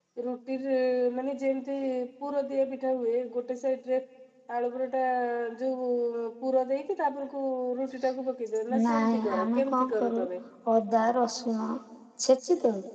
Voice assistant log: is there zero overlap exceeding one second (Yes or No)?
No